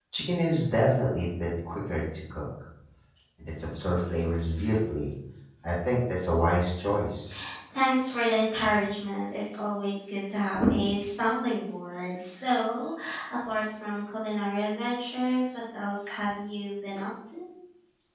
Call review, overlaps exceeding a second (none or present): none